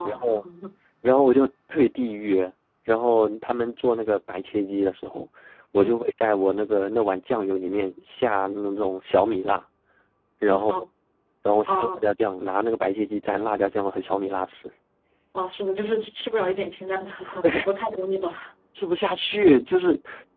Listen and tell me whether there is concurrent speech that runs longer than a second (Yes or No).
No